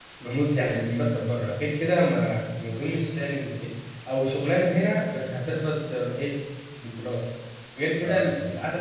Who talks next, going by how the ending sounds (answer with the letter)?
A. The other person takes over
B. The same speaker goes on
B